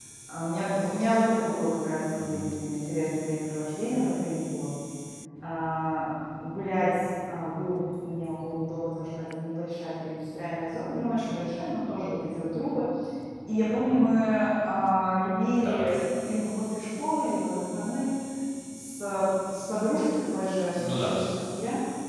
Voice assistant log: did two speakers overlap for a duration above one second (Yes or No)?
No